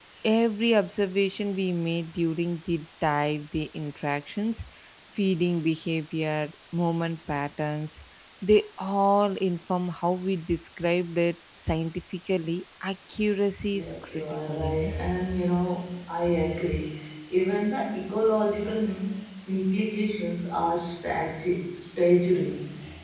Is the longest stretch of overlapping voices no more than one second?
No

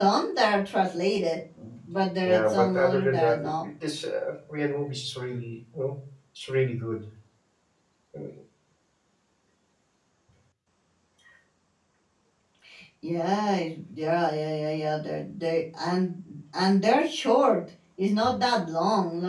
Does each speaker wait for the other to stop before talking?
No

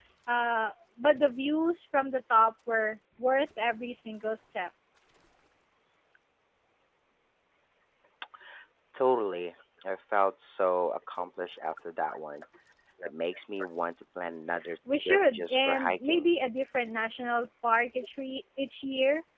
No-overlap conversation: No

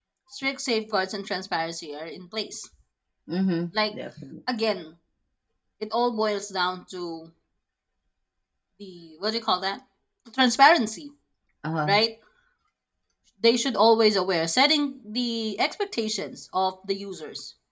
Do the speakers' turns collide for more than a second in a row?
No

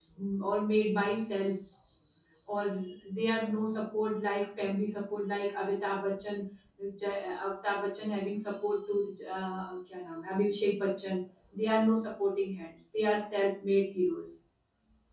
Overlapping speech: No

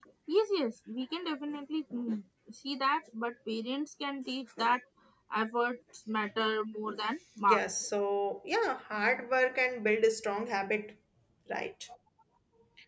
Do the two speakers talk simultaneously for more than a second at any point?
No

